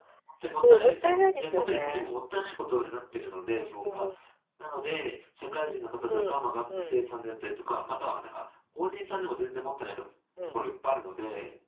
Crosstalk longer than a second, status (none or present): present